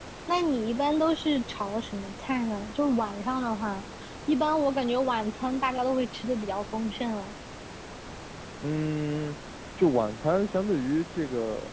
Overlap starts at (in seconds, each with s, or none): none